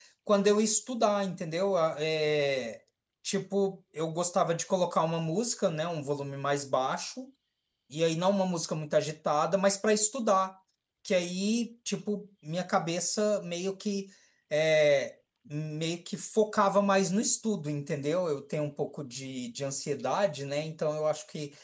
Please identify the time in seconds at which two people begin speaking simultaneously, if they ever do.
none

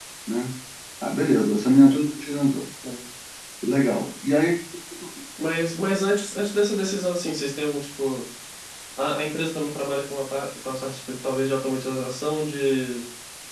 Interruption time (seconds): none

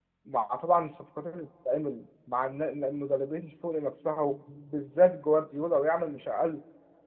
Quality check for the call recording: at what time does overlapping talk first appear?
none

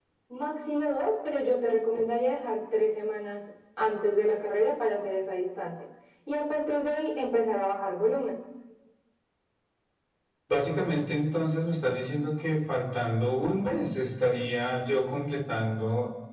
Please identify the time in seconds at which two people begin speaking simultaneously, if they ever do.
none

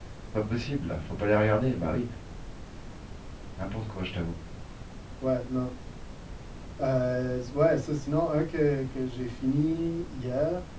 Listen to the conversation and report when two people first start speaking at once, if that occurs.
none

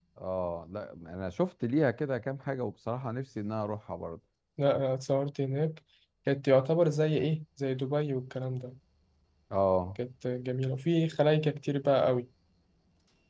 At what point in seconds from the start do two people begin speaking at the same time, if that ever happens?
none

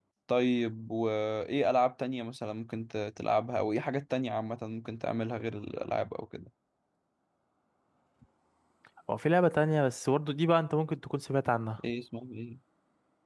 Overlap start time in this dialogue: none

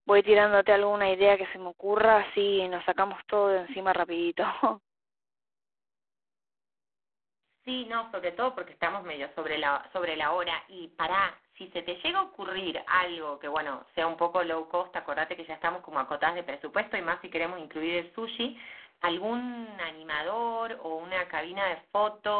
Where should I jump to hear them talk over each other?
none

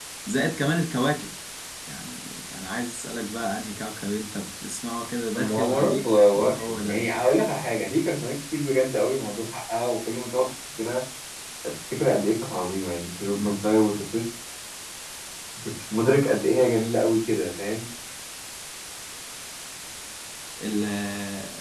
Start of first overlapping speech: 5 s

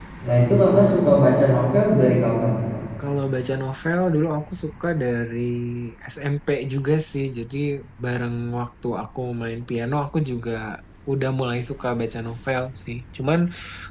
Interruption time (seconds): none

